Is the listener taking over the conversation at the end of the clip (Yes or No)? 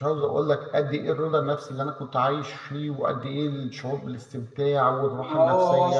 Yes